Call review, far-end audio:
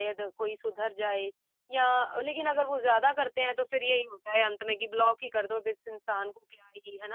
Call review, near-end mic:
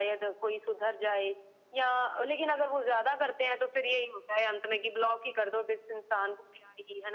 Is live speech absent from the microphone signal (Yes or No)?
Yes